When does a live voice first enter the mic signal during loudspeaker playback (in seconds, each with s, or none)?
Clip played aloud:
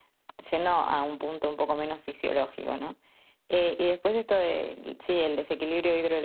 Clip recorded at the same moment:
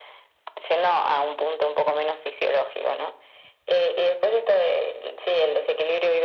none